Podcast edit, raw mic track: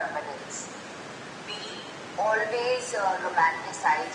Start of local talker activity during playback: none

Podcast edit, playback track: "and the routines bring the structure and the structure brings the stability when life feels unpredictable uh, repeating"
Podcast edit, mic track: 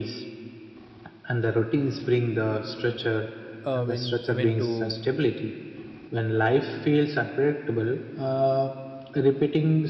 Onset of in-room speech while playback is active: 4 s

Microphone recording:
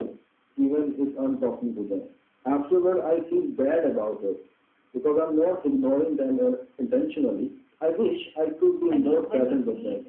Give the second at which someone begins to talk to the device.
9 s

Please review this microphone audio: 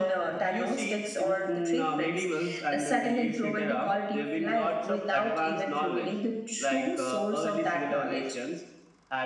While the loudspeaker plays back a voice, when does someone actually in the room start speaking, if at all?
none

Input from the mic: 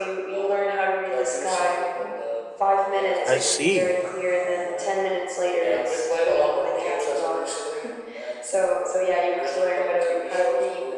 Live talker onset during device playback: 3 s

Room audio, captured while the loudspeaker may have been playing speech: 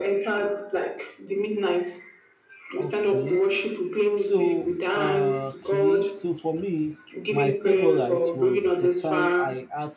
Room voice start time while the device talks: 3 s

